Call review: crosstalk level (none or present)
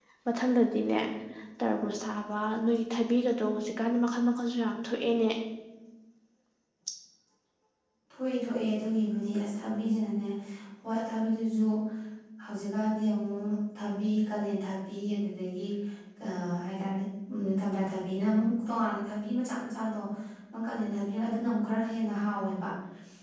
none